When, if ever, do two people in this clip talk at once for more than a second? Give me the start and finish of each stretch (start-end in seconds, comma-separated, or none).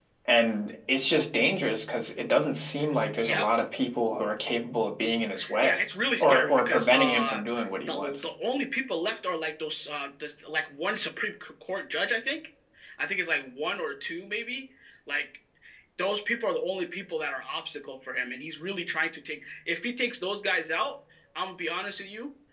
6.2-7.4